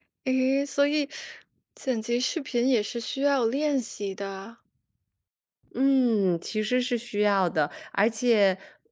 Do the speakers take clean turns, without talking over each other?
Yes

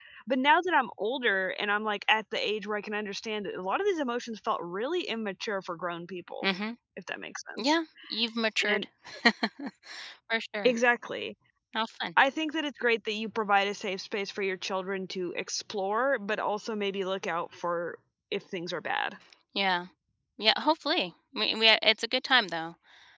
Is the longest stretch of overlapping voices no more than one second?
Yes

